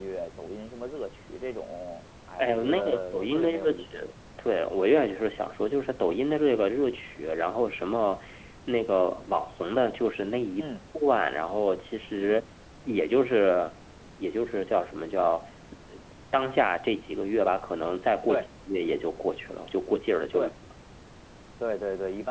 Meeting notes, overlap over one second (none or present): present